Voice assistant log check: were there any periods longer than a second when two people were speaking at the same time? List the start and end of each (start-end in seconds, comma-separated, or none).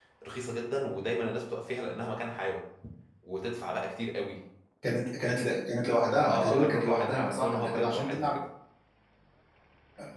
6.2-8.3